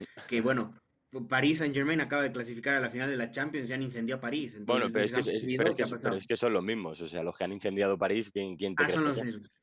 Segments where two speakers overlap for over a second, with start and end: 4.7-6.2

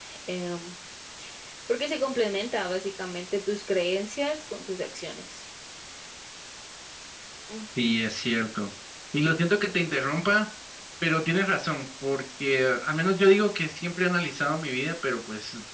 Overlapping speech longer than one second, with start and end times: none

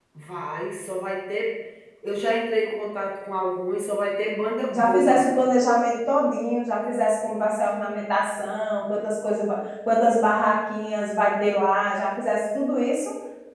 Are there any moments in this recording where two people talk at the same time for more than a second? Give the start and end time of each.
none

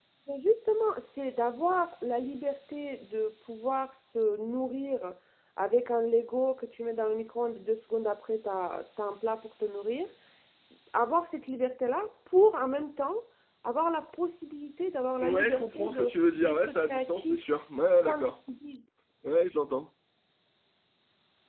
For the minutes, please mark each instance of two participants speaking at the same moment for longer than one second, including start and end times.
15.2-17.4

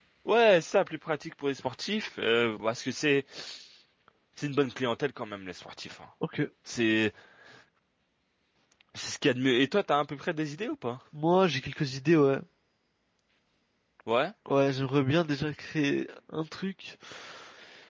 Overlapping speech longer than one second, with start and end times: none

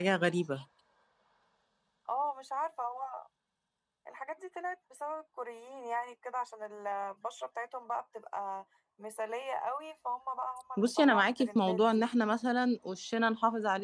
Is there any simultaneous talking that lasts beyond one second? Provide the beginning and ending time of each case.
10.8-12.1

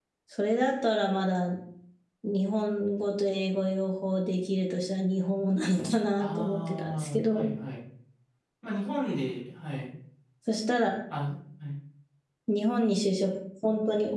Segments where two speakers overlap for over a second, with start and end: 6.2-7.5

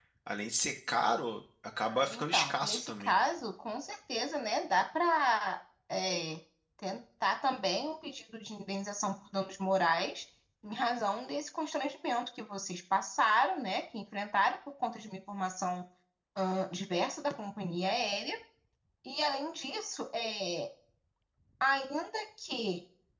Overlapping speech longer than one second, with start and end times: 1.9-3.2

